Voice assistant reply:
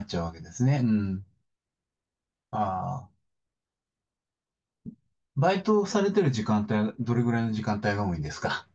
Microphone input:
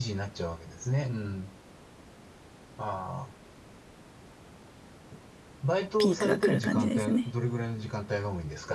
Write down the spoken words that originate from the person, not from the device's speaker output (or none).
ピークが来る感じですね。